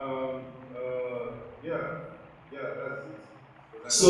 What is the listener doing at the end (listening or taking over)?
taking over